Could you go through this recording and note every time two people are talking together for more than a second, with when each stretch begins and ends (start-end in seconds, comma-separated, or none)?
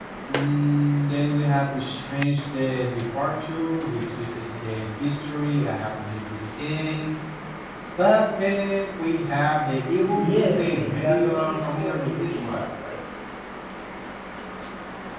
10.1-12.7